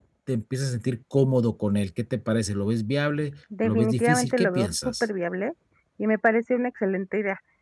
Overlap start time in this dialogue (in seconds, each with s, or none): 3.6 s